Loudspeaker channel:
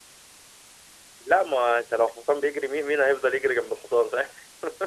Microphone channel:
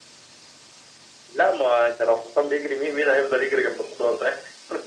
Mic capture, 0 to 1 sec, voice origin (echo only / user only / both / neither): neither